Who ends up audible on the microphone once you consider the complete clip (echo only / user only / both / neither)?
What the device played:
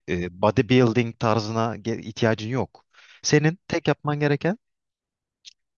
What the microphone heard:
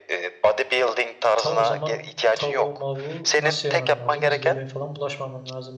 both